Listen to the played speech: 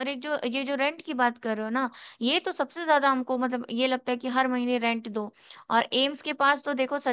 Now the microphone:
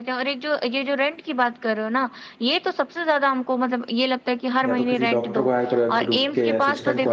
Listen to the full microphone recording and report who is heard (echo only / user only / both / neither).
both